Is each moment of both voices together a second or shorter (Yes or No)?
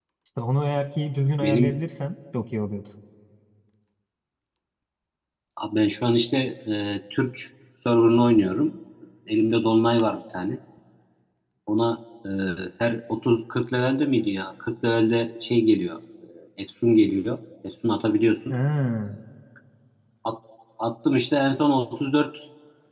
Yes